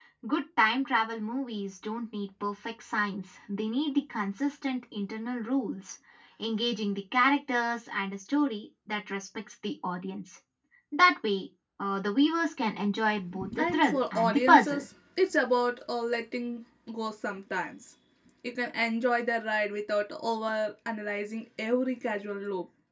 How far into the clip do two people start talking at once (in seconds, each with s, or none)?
13.3 s